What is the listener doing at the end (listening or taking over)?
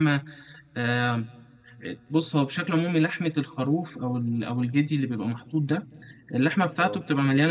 listening